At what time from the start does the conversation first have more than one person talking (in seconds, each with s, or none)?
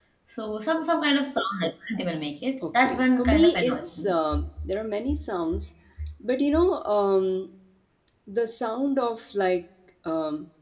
2.6 s